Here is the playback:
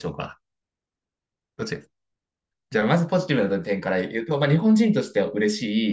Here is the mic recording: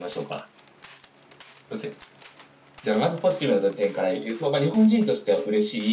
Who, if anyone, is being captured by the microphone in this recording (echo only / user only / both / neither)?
echo only